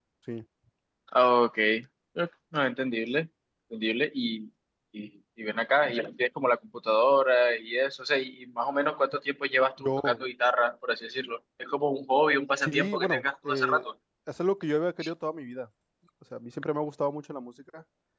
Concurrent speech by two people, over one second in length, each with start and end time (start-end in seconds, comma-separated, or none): 12.6-13.9